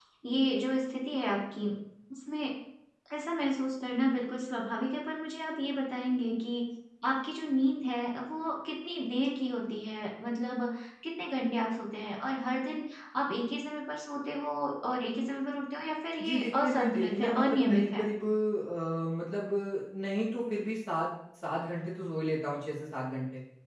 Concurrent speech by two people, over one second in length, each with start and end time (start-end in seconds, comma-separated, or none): 16.2-18.0